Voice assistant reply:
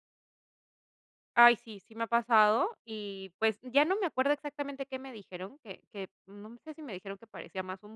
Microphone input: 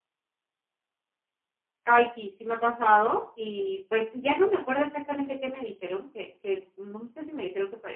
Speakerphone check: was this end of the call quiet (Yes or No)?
Yes